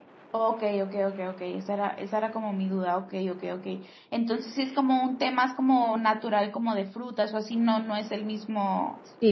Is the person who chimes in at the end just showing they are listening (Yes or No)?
No